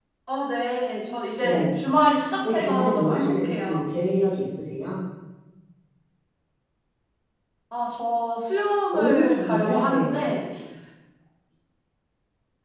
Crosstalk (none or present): present